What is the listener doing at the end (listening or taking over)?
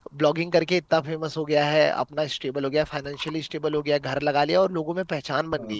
taking over